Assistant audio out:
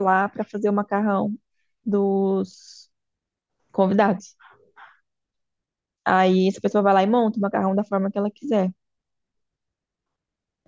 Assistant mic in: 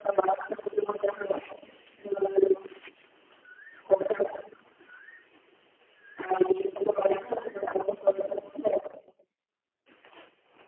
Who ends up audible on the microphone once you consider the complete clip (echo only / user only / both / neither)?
echo only